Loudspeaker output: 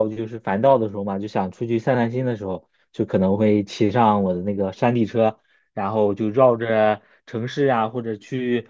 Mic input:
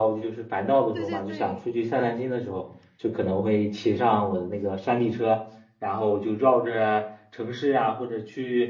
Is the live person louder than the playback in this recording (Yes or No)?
No